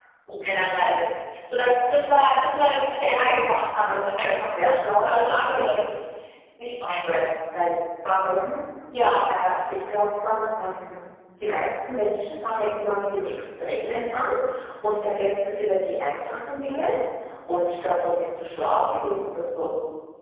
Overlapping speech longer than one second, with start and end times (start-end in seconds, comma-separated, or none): 3.8-5.8